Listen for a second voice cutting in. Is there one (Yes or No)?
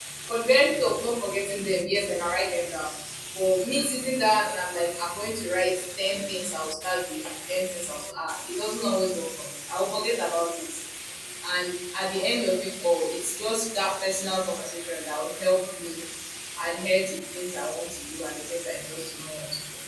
No